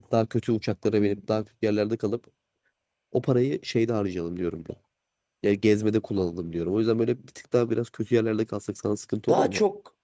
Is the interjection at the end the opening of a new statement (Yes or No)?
Yes